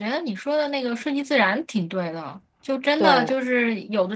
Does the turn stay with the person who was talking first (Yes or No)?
Yes